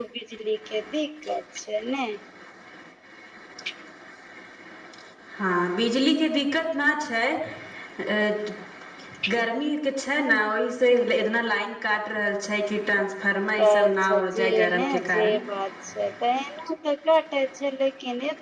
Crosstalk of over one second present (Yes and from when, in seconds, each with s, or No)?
Yes, from 13.6 s